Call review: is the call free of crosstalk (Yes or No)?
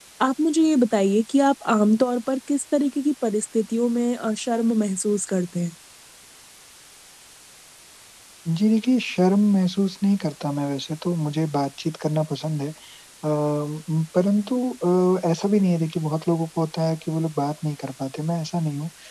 Yes